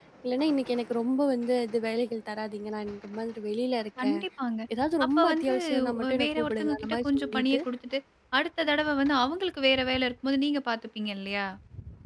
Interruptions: present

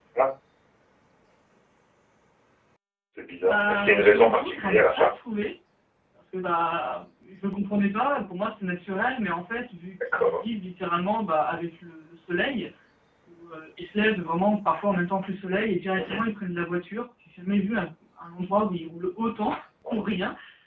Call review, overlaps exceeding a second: present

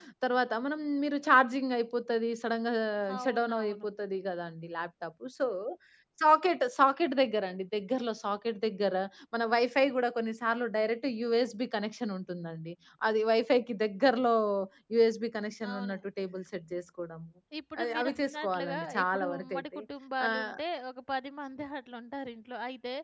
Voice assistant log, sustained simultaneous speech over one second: present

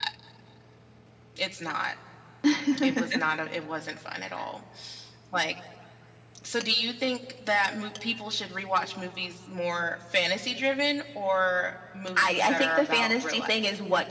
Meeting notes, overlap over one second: present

